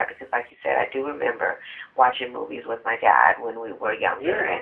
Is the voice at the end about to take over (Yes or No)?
No